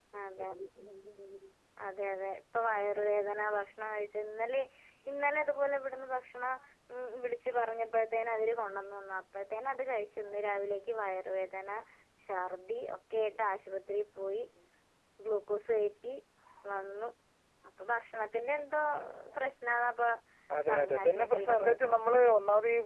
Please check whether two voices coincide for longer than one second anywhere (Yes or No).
Yes